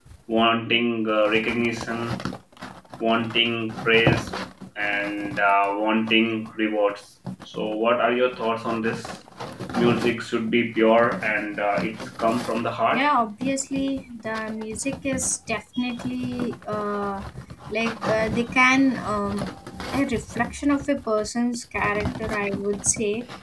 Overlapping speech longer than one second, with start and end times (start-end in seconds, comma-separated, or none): none